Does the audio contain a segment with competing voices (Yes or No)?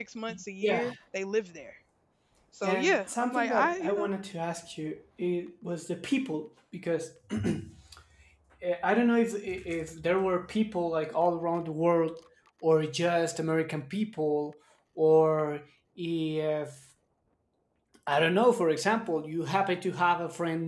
Yes